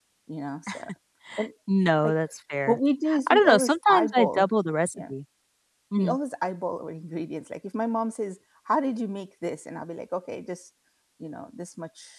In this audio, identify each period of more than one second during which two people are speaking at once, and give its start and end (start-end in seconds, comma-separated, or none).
3.3-4.5